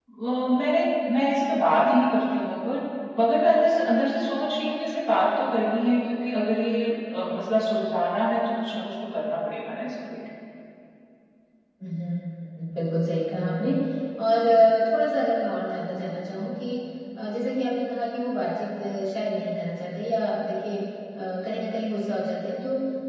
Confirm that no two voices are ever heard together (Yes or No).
Yes